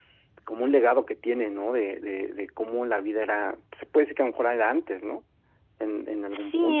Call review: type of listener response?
taking over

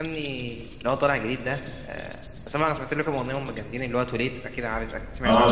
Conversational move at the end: taking over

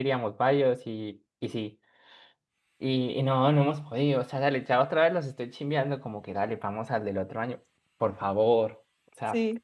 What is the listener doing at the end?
listening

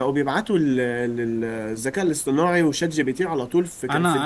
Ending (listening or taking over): taking over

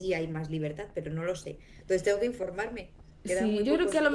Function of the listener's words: taking over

